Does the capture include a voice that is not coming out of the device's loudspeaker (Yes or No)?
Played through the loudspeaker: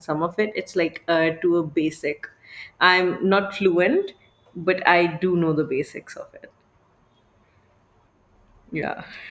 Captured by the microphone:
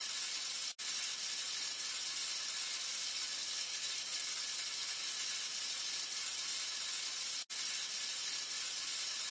No